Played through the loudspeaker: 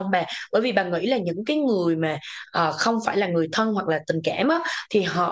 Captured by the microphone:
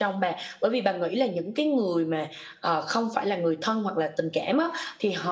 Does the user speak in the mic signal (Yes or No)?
No